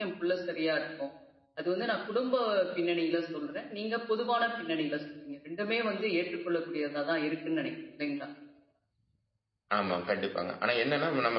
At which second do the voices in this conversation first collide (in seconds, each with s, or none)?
none